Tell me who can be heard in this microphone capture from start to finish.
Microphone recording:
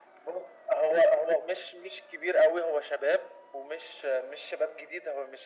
echo only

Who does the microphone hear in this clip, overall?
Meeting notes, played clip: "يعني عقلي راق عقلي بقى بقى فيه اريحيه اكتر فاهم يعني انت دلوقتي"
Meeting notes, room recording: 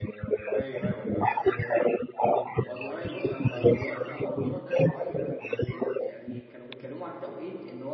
both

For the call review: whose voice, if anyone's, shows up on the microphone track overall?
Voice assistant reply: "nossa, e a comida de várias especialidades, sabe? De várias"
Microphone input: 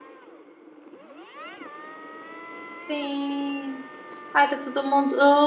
user only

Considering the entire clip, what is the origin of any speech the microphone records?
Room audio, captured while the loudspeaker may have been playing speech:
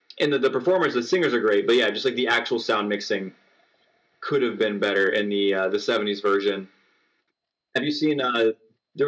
echo only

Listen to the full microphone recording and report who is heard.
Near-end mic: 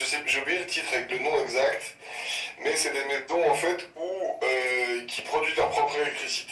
echo only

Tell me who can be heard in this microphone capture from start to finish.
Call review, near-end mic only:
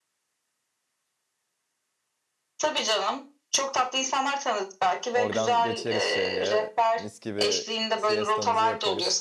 both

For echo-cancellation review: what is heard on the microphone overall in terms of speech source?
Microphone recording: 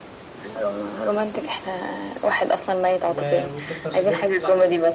both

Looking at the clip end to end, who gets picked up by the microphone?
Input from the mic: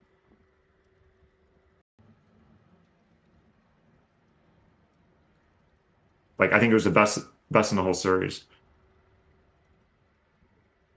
user only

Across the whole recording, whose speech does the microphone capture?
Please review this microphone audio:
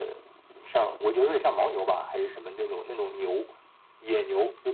echo only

